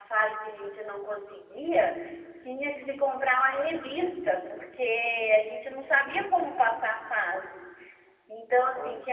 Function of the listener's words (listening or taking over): listening